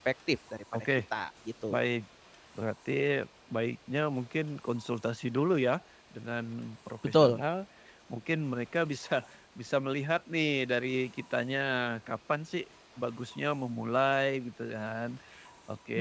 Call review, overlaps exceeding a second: none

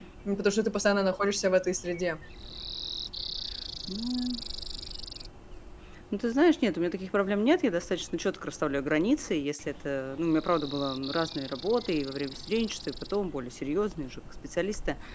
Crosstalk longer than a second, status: none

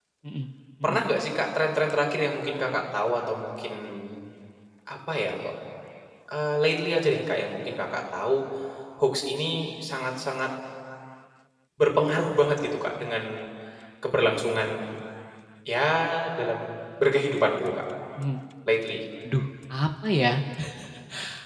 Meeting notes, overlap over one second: none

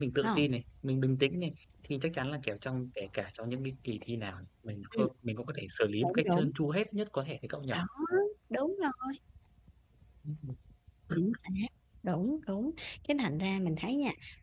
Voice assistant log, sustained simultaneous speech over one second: none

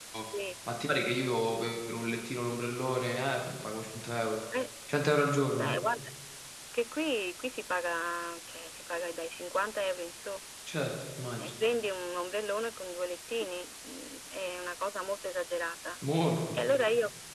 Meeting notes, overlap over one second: none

